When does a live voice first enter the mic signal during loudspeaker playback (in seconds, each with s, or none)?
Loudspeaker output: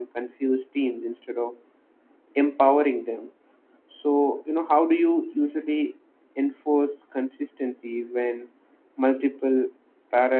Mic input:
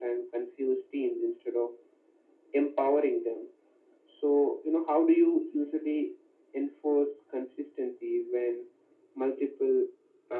none